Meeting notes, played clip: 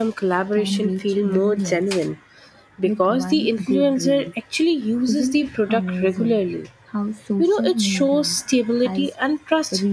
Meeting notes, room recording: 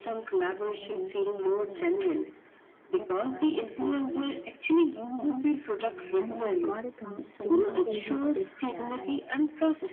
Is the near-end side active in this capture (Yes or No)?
Yes